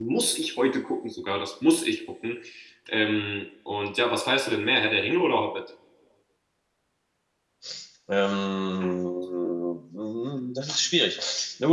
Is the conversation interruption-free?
Yes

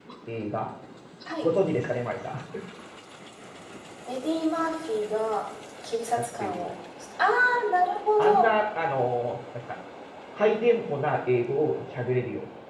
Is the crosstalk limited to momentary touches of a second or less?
Yes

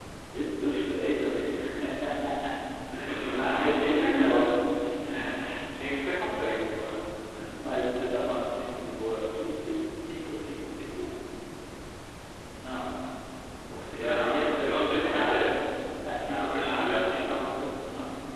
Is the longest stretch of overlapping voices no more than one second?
No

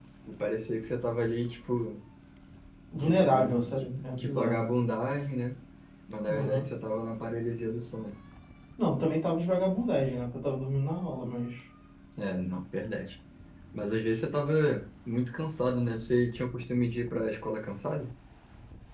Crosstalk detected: Yes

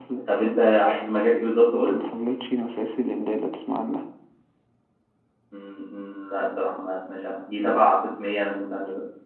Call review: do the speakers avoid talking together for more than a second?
Yes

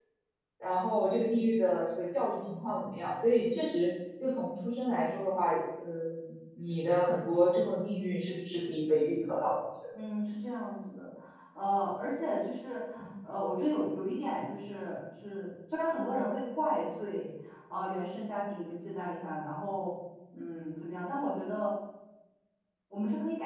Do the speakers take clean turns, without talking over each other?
Yes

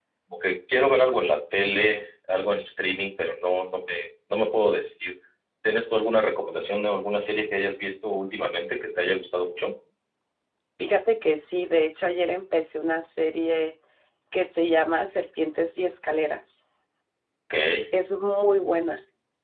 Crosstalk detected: No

